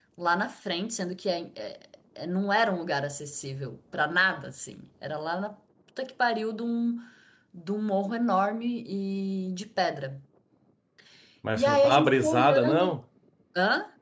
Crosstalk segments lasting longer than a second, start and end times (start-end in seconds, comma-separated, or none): 11.6-12.8